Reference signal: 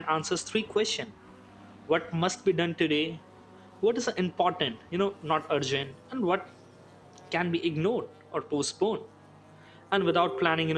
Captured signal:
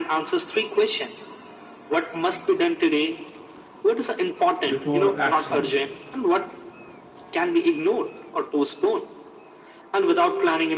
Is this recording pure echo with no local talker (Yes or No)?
No